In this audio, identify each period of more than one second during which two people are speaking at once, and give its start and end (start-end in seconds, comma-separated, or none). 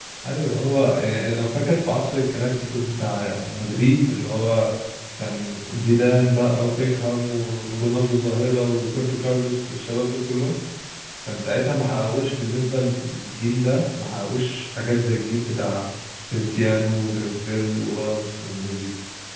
none